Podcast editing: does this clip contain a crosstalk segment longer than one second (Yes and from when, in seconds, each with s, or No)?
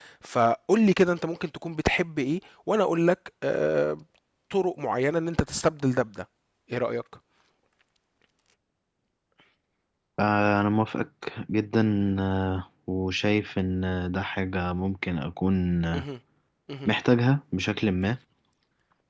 No